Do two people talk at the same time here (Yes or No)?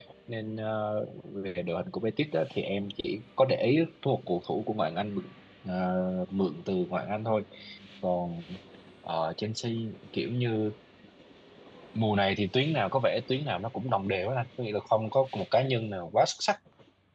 No